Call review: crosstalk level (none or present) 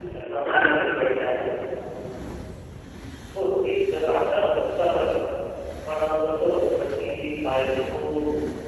none